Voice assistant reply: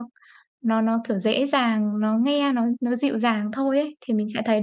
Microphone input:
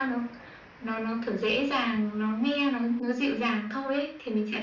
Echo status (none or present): present